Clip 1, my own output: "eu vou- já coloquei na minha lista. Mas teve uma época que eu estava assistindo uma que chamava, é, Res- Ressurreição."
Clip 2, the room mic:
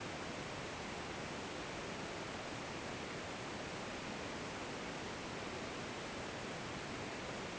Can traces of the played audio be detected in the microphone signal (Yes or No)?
No